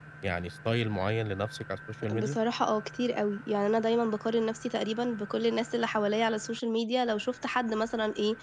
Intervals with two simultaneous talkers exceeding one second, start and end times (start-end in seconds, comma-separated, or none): none